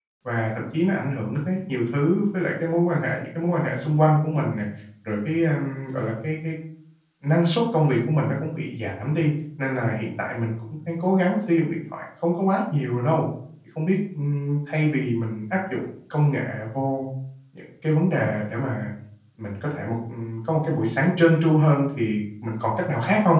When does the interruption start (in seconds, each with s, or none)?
none